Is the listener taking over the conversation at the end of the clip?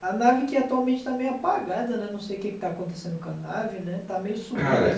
Yes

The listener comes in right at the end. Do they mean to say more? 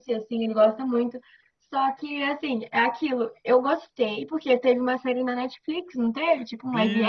Yes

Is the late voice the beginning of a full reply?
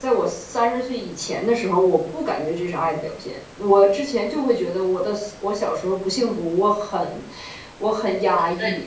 No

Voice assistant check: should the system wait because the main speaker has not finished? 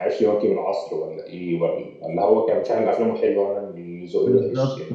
No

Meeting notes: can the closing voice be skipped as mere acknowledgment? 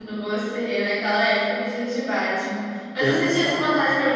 Yes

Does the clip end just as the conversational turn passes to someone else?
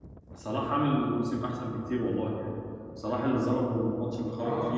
Yes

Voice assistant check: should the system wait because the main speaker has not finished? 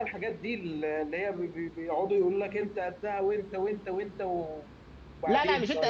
No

